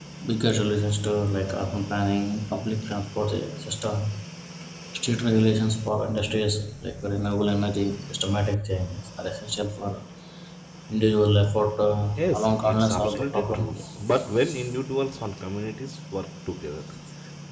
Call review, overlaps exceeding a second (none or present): present